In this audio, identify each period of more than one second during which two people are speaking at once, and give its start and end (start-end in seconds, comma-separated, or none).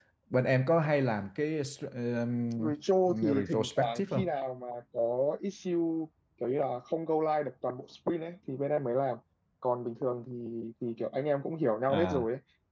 3.1-4.3